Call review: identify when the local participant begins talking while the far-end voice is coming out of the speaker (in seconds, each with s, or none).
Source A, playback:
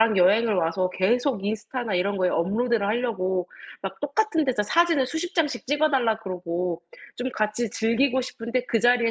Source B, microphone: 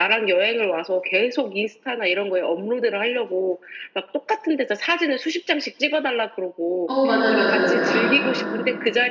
6.8 s